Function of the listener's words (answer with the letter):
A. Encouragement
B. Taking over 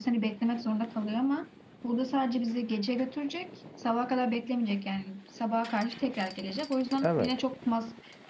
A